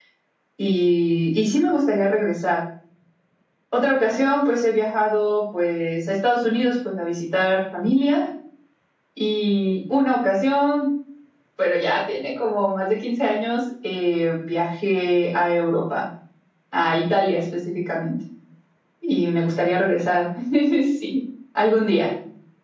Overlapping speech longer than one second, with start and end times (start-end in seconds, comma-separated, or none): none